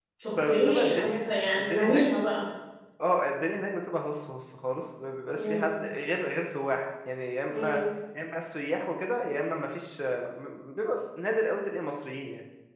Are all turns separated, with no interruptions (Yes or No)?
No